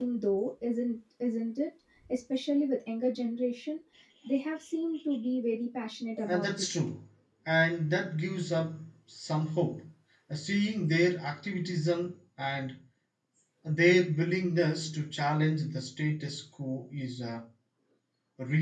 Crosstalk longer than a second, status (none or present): none